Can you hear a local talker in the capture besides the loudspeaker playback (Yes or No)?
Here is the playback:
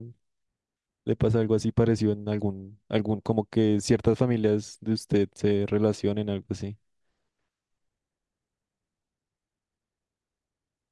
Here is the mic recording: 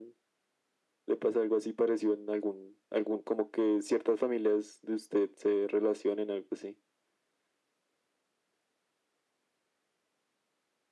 No